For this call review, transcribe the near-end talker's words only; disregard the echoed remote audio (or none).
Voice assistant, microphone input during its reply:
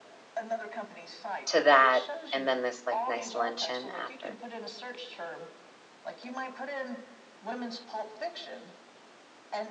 to that and then this like nice luncheon after.